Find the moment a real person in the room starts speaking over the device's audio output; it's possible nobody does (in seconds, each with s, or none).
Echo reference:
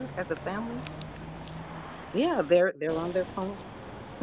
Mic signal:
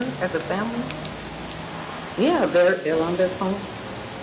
none